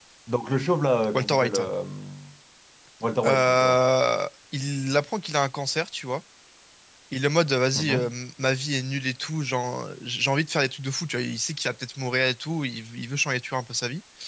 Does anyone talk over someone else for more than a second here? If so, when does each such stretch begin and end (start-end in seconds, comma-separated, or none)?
none